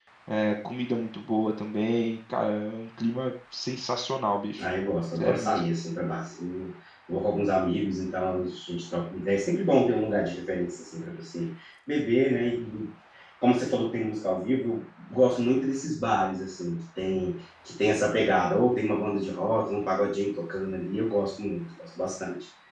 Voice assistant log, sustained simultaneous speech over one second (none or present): none